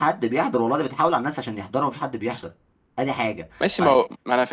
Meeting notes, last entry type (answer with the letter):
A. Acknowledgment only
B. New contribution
B